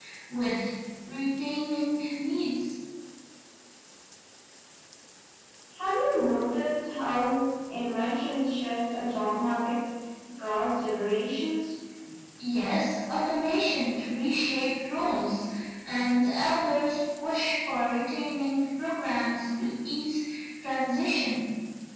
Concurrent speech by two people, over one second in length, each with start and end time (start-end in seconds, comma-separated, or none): none